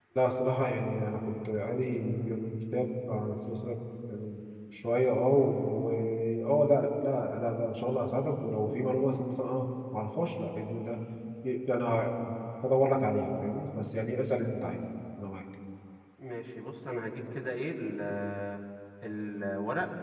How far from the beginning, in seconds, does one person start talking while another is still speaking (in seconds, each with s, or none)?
none